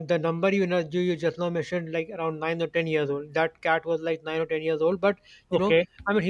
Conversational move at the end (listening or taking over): listening